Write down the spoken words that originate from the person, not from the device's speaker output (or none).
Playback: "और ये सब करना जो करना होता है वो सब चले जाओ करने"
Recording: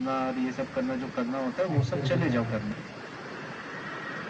एक्टिव हो जाना है